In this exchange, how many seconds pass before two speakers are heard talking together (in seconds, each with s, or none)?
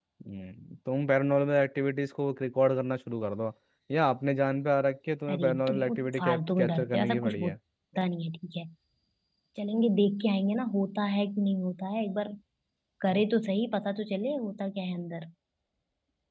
5.3 s